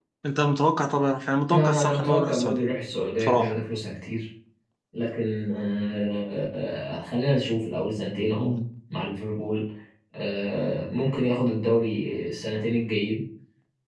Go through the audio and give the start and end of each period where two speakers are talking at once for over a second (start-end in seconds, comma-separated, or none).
1.5-2.7